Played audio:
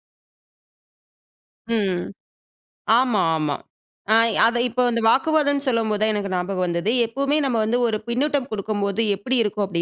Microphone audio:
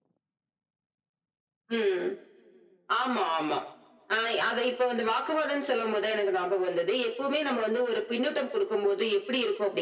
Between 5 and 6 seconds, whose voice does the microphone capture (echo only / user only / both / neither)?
echo only